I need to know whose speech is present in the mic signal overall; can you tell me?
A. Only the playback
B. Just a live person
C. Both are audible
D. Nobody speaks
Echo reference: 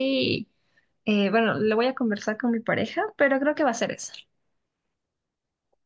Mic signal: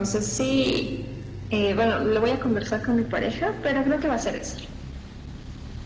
A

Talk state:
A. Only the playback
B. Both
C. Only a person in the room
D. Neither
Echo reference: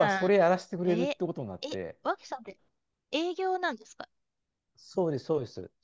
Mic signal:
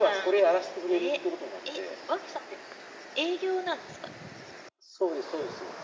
A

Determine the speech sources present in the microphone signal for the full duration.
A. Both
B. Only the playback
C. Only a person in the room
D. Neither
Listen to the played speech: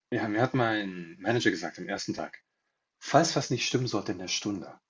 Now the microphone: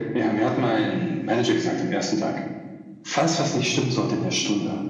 B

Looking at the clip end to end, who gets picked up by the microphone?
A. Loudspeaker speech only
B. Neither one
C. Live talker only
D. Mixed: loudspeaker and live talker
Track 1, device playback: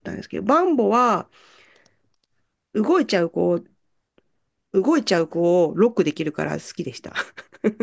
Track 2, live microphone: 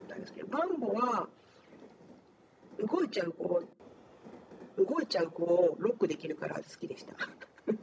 A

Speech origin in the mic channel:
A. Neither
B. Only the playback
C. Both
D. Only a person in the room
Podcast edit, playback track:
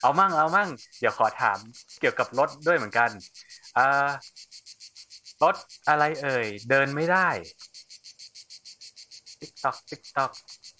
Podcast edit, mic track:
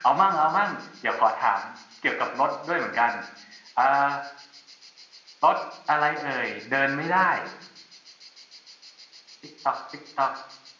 B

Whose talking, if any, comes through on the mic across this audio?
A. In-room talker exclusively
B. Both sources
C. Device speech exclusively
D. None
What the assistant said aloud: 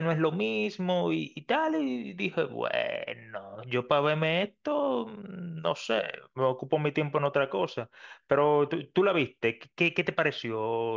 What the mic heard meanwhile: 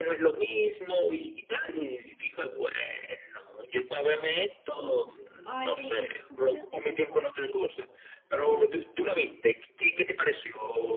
B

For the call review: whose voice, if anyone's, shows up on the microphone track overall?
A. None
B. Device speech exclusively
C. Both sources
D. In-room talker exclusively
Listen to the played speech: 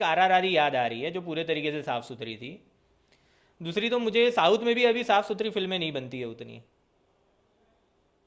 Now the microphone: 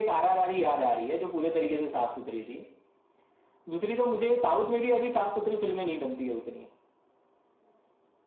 B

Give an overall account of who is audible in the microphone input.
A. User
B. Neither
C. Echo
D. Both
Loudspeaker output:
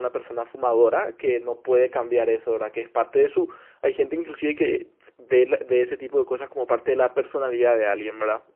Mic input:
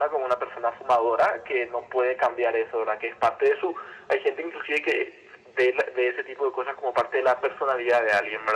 C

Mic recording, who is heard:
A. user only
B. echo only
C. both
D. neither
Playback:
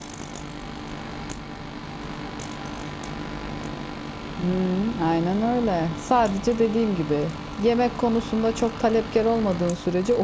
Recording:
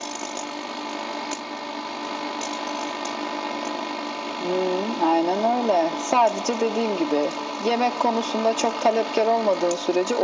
B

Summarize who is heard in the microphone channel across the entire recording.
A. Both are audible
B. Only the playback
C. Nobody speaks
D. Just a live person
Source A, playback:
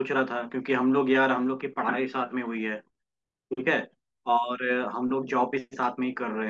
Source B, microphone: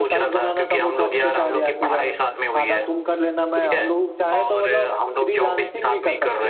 A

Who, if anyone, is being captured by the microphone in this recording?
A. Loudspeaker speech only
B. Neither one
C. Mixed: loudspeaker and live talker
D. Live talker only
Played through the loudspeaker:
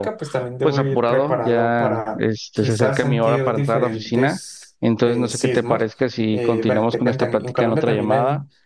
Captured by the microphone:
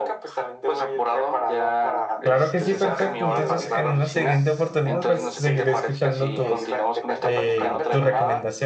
C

